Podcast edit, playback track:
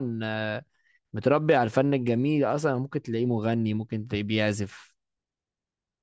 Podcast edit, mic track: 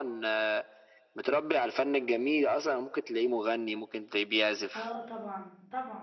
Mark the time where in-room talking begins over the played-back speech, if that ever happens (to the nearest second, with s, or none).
5 s